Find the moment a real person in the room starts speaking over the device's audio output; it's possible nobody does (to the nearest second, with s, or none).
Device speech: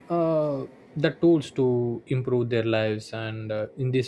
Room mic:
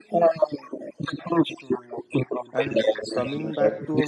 3 s